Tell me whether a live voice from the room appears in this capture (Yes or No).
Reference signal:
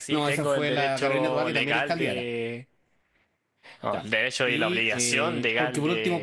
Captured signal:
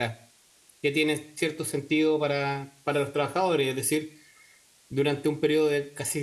Yes